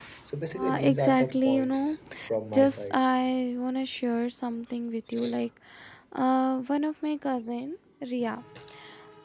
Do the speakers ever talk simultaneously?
Yes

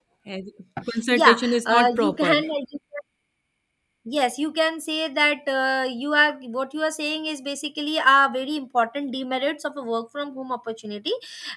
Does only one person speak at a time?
No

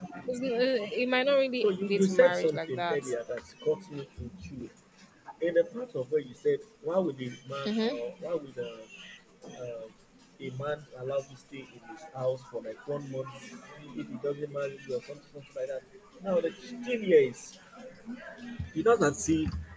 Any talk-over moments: Yes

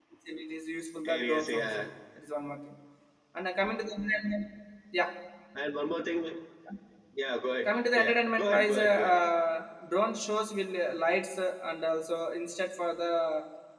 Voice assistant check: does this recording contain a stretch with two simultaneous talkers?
Yes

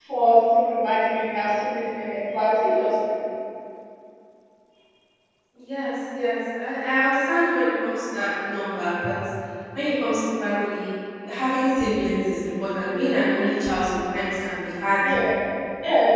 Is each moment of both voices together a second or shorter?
Yes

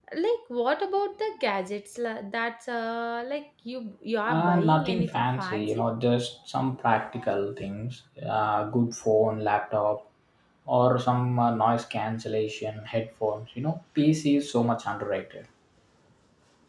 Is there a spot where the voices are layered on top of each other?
Yes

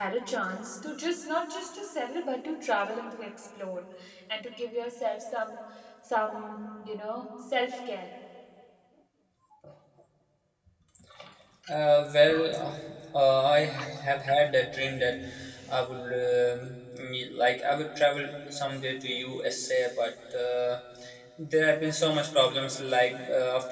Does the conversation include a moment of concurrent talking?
No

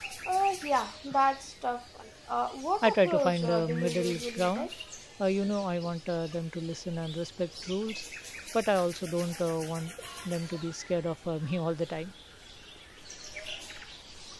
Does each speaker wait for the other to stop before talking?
No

